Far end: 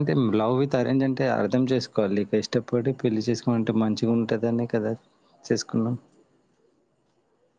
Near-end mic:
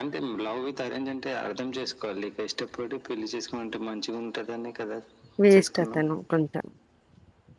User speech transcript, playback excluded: వేస్ట్ అతను కొంత

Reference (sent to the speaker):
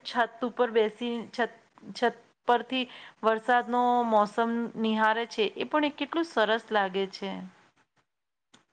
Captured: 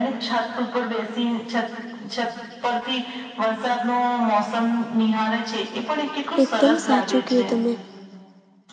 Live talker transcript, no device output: એકદમ સાચું કયુ તમે.

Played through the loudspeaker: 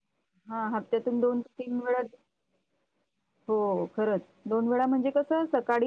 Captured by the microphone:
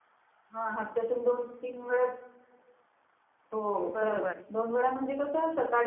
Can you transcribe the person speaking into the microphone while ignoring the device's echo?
बरोबर,

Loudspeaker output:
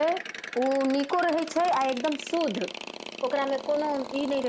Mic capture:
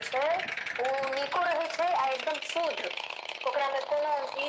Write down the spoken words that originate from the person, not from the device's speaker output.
none

